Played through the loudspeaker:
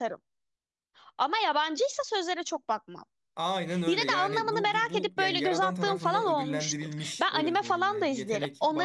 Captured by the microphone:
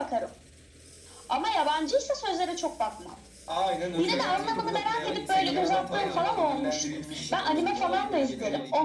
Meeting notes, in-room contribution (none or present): present